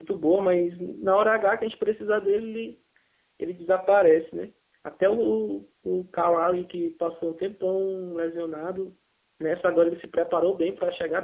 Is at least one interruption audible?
No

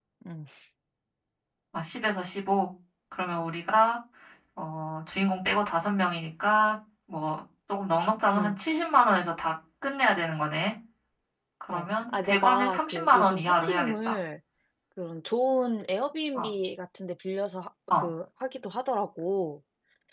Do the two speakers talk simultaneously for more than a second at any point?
Yes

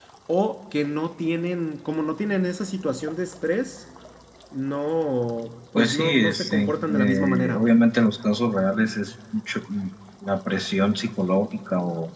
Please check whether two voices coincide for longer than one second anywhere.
Yes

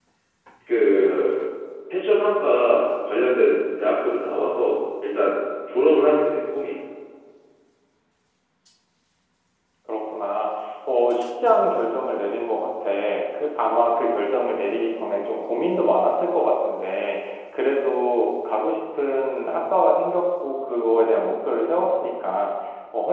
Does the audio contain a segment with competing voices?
No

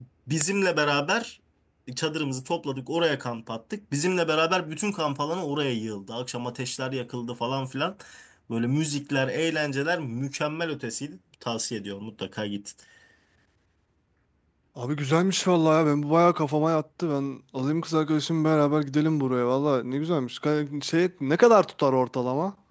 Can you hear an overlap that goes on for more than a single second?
No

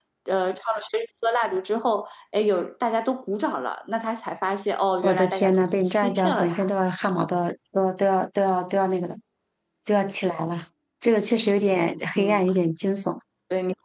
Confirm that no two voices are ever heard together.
No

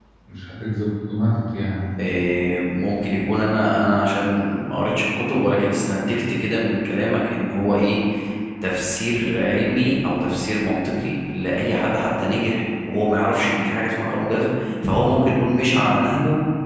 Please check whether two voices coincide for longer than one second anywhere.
No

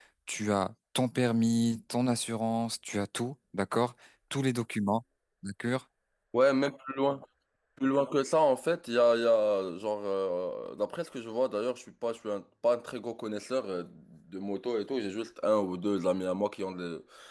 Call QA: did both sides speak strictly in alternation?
Yes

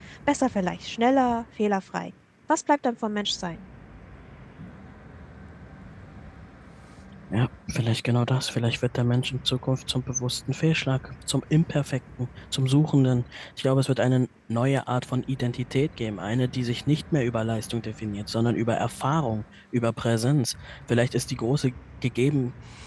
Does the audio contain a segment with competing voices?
No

